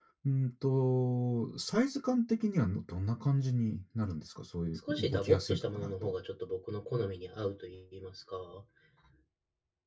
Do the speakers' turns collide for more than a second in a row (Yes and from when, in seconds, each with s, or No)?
Yes, from 4.9 s